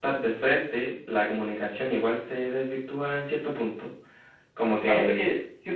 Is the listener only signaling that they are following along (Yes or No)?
No